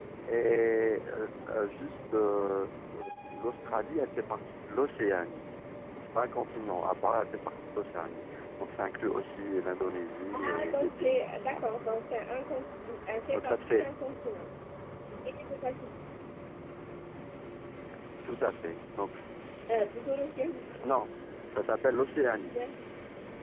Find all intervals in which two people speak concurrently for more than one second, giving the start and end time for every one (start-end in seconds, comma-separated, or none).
10.3-11.6